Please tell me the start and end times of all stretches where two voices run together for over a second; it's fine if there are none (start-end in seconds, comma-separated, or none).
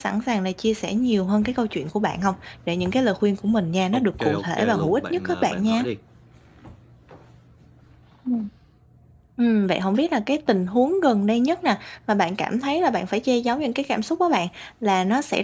3.9-5.8